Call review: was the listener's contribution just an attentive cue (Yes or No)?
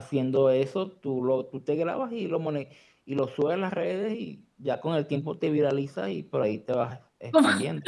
No